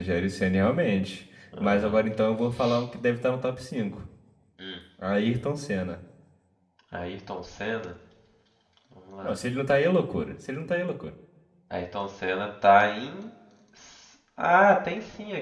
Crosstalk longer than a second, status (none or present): none